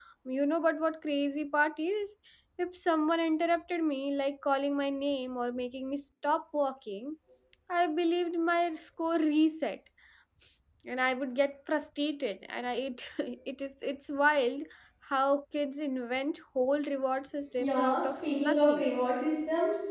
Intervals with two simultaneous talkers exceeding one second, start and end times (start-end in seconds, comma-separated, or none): 17.6-18.9